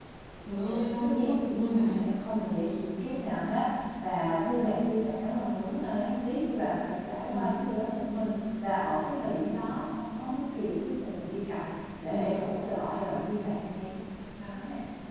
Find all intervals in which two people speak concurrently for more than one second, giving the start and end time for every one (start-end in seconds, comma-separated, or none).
0.6-2.0